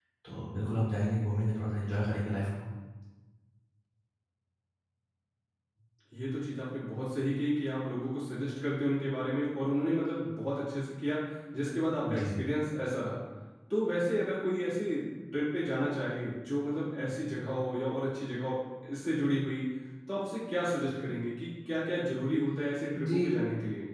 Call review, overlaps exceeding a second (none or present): none